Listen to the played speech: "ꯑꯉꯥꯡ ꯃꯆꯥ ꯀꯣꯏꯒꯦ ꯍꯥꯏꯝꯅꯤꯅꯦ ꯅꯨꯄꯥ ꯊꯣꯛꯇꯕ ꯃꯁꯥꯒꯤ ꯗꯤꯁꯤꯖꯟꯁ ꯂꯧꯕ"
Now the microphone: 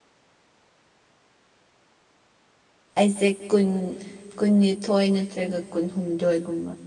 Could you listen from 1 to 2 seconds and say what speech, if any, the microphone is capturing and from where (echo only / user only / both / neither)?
neither